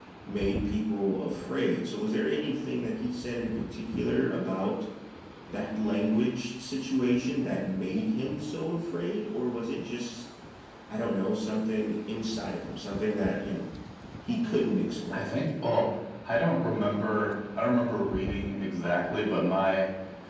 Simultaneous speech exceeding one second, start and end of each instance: none

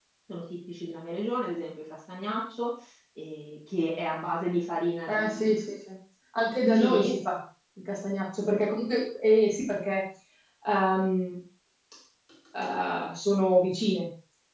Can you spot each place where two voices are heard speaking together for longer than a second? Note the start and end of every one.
none

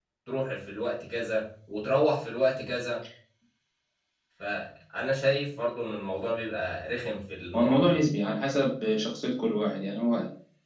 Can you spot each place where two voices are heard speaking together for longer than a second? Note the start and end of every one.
none

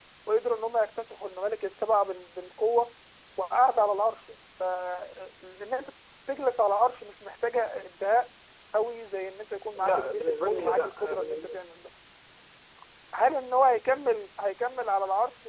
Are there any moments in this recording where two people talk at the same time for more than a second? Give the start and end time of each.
9.8-11.5

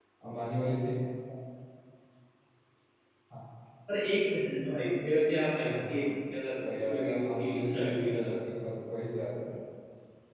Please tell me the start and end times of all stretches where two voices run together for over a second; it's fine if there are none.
6.7-8.4

